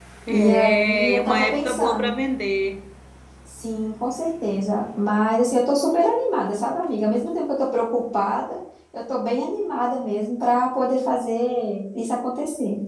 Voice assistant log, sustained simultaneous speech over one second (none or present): present